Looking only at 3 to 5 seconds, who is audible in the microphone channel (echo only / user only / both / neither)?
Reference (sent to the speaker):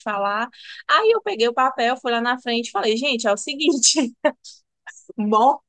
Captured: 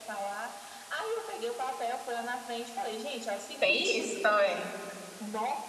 both